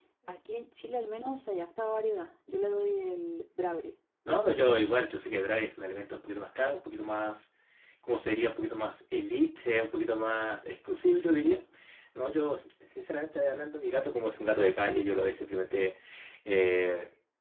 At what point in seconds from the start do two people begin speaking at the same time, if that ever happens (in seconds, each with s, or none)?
none